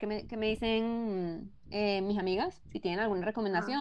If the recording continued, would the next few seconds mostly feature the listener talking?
No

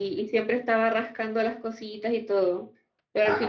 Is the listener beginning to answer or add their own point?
No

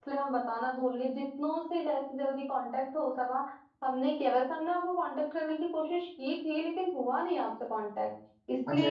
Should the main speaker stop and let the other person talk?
Yes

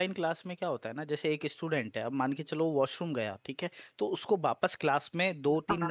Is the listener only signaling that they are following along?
Yes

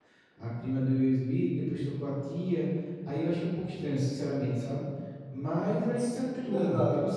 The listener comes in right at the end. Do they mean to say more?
No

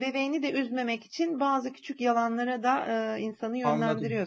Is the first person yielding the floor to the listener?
Yes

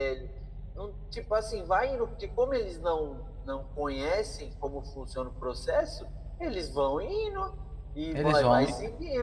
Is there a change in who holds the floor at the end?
No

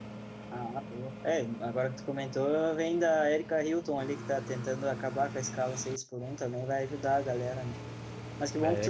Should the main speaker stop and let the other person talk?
No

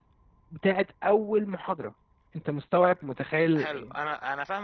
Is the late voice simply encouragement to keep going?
No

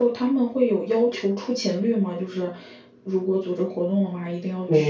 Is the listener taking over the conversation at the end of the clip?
Yes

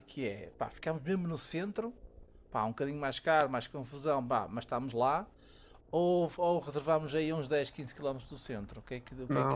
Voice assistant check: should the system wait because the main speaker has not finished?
No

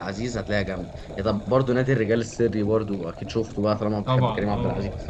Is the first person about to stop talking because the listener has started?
Yes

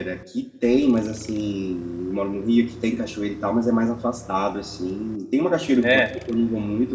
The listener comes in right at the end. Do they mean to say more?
No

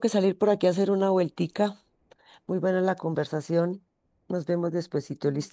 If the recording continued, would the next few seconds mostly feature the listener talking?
Yes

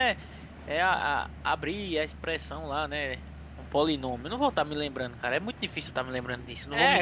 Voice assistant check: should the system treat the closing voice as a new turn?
Yes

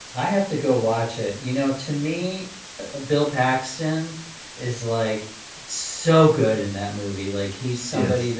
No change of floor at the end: Yes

